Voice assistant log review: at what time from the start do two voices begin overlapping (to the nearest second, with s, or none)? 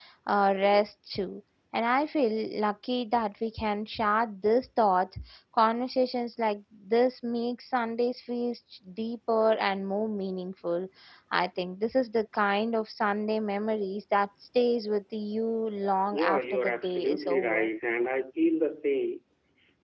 16 s